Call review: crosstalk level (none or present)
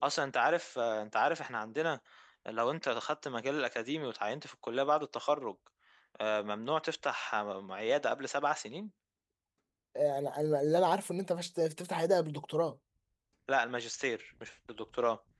none